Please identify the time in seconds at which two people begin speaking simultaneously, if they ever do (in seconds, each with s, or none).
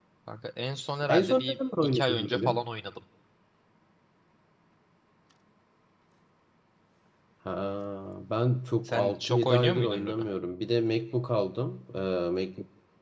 1.1 s